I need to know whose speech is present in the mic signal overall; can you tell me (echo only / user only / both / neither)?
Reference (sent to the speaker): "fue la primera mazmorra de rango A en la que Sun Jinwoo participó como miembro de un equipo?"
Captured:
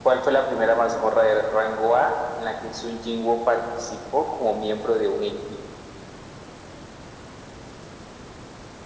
echo only